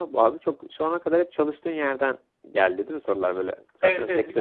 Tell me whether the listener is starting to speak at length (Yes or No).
Yes